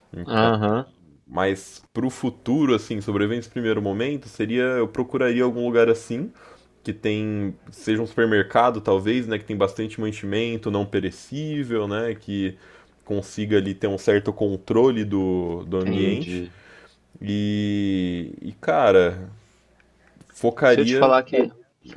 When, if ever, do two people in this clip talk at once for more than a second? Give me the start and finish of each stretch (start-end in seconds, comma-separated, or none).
none